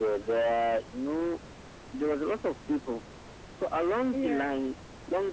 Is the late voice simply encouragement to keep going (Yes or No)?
Yes